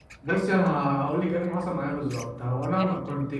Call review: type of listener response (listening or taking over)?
listening